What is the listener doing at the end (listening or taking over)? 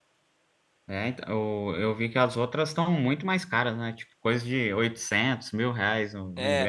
taking over